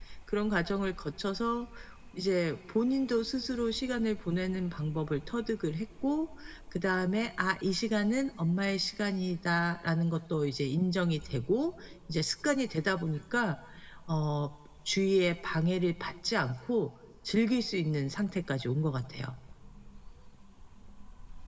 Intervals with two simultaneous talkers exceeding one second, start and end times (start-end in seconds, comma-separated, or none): none